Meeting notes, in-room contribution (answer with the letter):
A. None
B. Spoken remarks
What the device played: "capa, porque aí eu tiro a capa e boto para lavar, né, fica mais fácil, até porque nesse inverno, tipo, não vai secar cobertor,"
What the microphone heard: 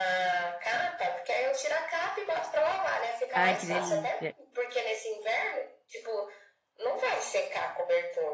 B